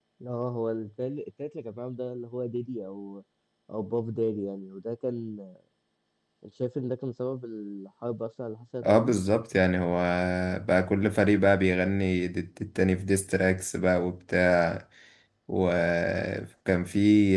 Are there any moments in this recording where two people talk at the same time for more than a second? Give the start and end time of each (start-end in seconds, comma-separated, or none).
none